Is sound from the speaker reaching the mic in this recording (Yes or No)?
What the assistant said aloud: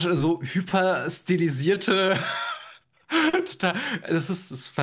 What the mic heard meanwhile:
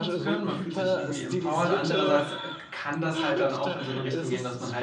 Yes